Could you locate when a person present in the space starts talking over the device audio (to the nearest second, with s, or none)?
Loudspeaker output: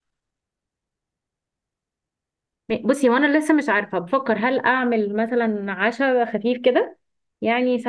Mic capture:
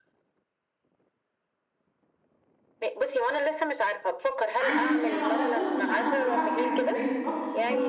5 s